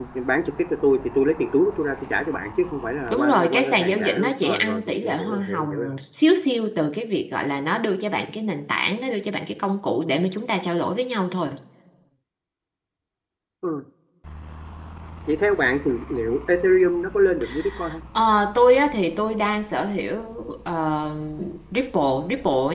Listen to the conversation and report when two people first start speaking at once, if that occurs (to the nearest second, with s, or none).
3 s